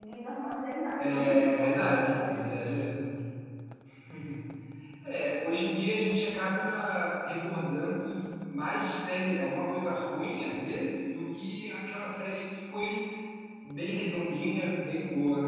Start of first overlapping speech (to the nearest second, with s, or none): 1 s